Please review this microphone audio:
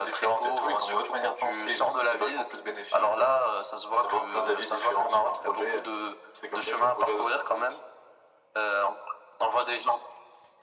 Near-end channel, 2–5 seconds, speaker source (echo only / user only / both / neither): echo only